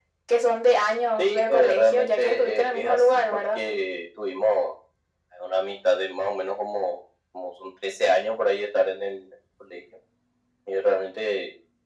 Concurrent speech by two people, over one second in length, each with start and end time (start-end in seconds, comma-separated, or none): 1.2-3.6